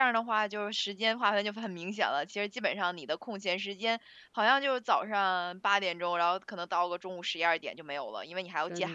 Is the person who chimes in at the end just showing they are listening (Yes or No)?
Yes